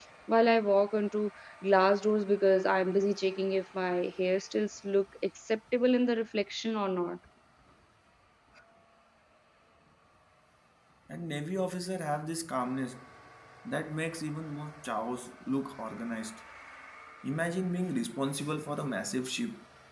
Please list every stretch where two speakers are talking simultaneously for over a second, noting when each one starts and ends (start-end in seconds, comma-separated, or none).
none